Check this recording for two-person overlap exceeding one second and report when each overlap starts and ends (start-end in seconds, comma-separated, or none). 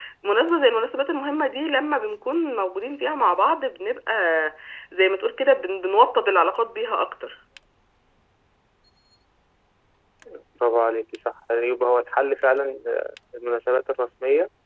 none